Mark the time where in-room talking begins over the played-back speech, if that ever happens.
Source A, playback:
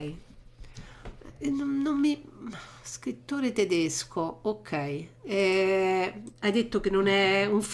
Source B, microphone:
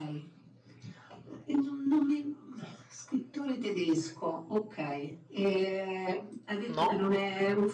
6.7 s

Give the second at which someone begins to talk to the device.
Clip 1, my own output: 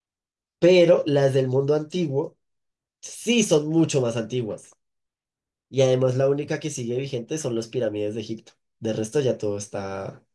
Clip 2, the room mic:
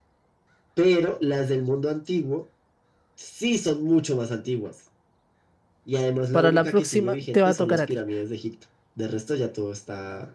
6.3 s

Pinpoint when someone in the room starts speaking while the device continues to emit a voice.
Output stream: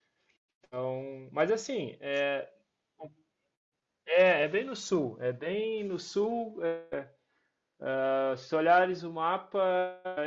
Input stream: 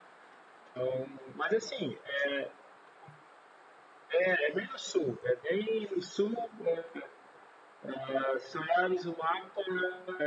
none

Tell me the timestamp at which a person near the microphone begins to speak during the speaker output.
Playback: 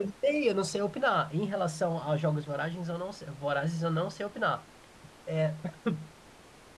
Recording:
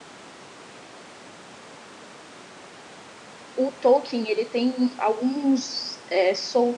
3.5 s

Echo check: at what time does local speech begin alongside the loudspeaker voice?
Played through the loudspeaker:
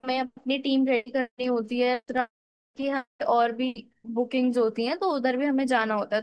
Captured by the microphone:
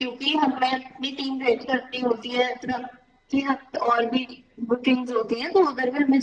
none

